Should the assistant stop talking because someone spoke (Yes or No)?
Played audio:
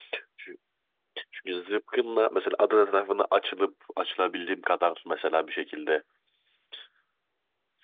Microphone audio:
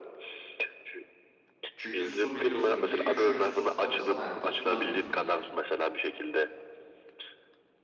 Yes